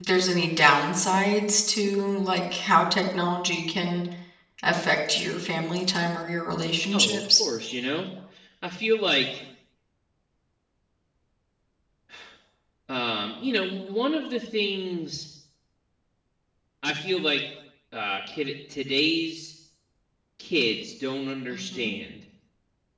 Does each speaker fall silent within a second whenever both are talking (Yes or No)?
Yes